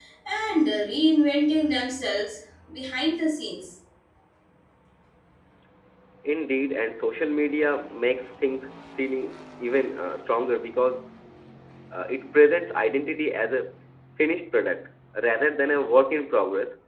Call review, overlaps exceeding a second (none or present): none